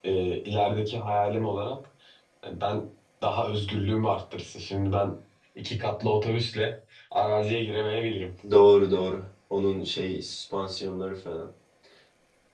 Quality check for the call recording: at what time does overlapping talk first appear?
none

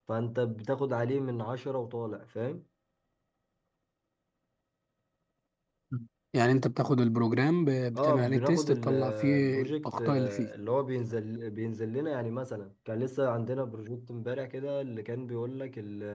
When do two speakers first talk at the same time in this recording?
8 s

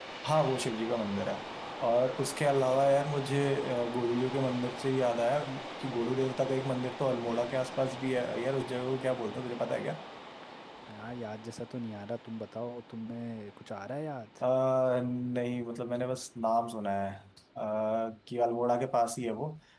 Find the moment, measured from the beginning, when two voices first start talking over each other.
none

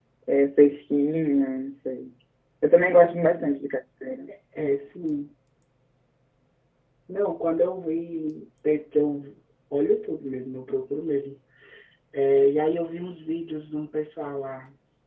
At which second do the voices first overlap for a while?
none

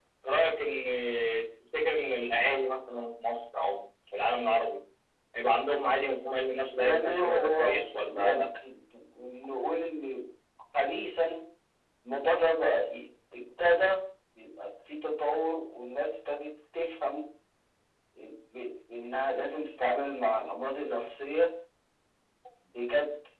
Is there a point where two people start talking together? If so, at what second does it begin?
7 s

